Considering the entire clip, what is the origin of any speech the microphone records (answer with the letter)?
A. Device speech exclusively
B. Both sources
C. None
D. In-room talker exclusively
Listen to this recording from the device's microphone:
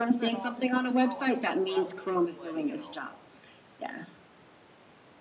B